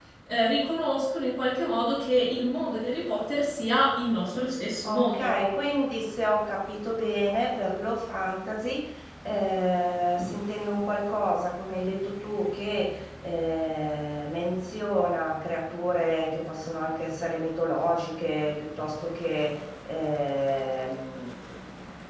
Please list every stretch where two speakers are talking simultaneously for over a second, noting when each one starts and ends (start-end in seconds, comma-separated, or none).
none